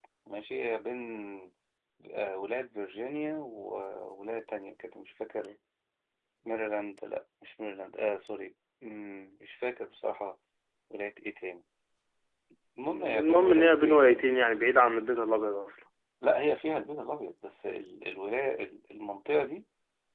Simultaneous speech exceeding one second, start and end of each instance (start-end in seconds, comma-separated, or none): 12.9-14.1